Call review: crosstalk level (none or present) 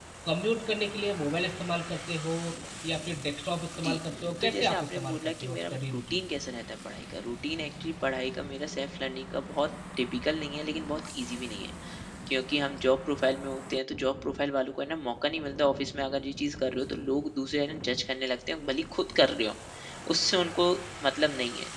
present